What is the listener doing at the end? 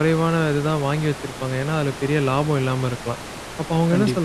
listening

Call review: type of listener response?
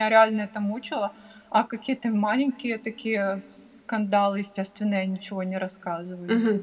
taking over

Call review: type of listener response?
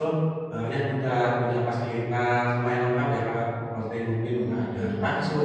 listening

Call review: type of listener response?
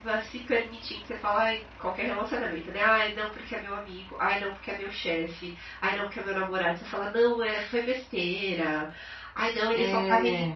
listening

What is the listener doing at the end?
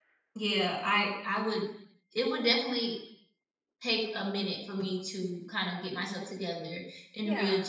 listening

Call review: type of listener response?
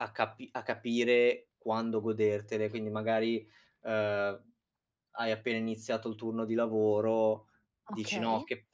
listening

